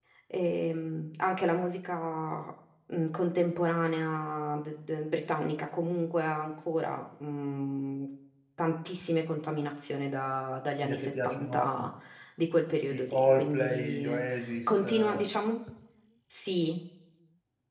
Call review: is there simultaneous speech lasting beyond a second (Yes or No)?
Yes